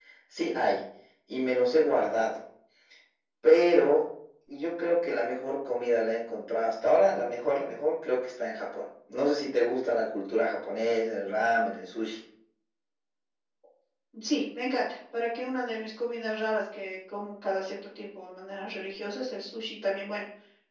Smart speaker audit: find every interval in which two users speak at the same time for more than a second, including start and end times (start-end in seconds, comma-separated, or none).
none